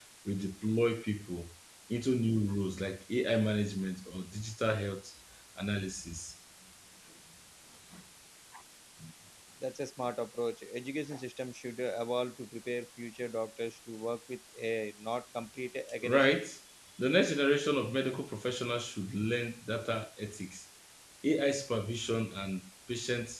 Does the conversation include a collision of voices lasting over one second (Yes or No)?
No